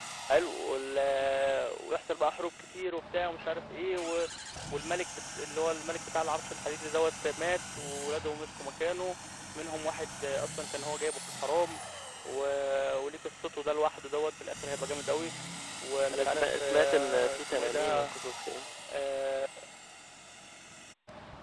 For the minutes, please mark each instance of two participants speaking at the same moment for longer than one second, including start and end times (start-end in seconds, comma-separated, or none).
16.1-18.1